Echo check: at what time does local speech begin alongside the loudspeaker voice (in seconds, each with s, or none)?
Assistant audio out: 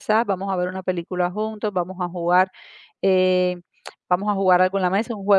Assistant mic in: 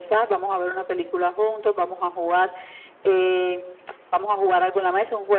none